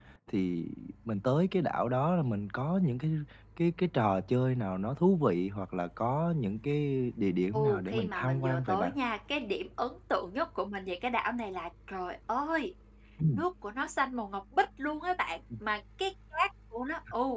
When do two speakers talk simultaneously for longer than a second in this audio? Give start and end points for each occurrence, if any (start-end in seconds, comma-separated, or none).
7.5-8.9